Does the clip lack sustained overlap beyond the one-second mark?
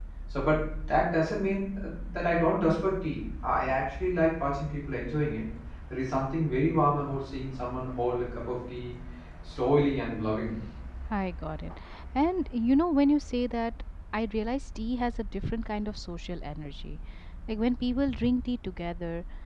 Yes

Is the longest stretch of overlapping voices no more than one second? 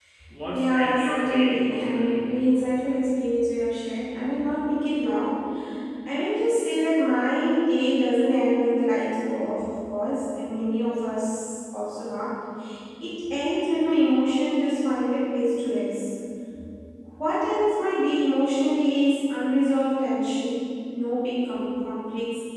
No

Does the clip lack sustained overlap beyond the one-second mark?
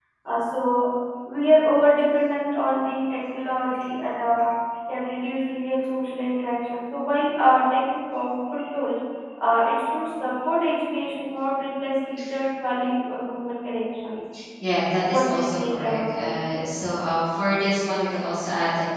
No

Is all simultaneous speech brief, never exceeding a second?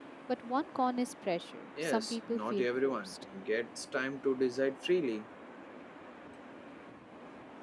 No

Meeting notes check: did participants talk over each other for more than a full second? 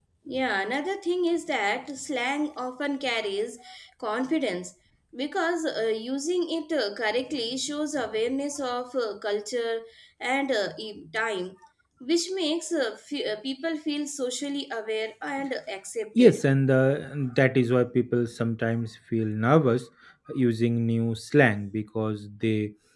No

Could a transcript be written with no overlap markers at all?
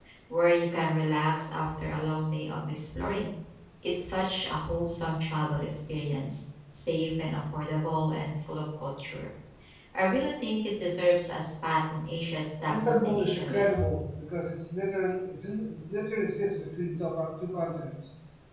No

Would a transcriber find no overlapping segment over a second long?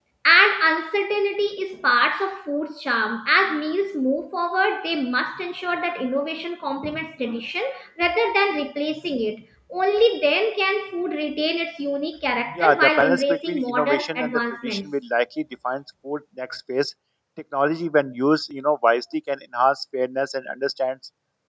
No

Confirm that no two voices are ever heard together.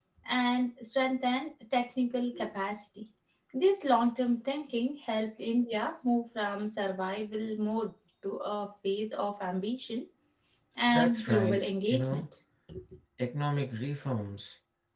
No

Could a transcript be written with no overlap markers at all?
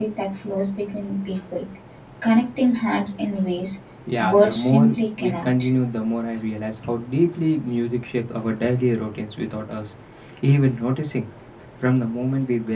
No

